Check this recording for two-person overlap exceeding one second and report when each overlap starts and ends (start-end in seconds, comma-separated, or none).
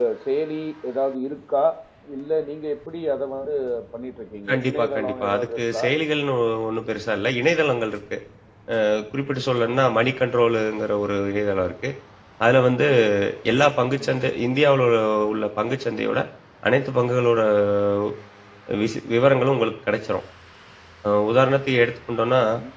4.5-5.8